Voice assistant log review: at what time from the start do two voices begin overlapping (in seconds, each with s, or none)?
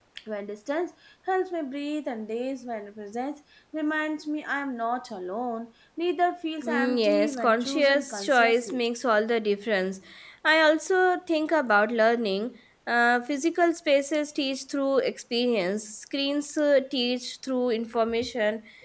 6.6 s